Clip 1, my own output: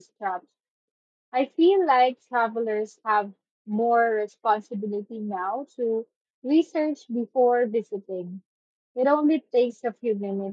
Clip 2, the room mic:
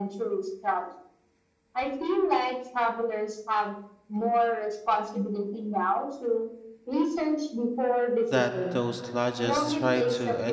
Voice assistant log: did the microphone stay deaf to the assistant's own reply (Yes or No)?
No